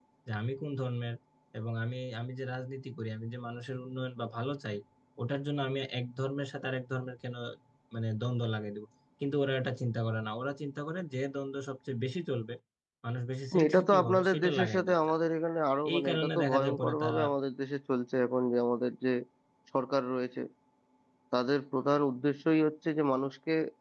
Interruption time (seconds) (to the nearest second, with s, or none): 14 s